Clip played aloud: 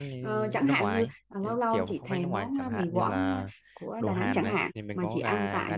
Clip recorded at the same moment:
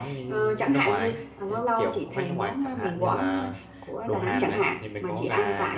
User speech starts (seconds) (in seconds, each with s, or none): none